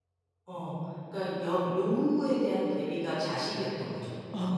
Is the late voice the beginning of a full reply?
Yes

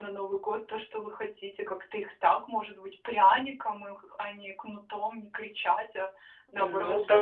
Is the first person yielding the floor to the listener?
Yes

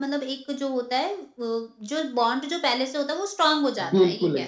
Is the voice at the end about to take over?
Yes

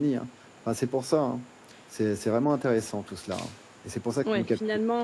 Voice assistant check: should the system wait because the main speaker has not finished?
No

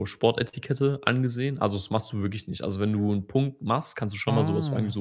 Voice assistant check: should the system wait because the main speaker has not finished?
Yes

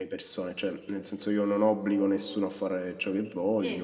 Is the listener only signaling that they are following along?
Yes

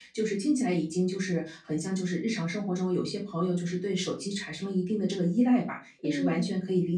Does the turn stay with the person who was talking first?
Yes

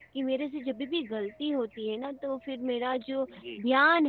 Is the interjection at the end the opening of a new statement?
No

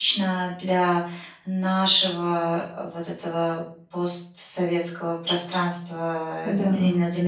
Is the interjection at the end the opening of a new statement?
No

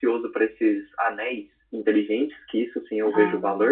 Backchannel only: Yes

